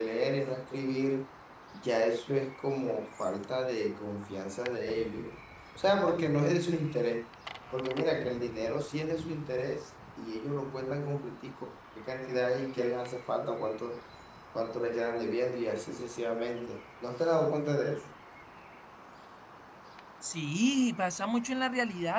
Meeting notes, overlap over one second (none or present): none